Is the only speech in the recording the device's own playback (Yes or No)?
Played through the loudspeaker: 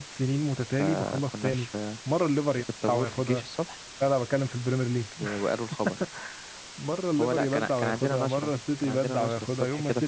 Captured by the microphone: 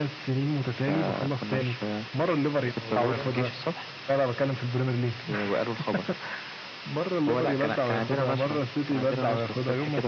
No